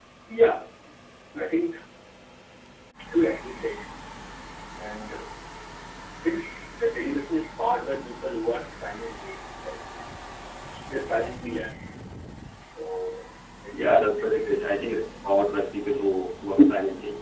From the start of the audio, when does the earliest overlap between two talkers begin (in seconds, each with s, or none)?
13.7 s